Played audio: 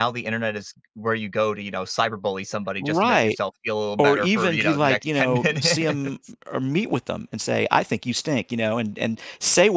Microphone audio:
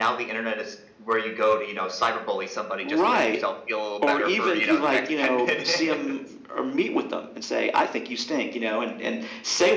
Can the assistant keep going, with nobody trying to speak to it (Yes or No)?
Yes